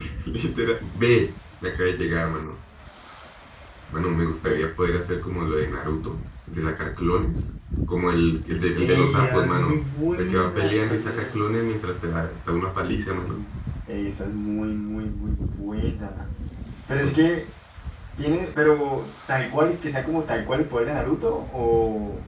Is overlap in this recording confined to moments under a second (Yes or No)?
No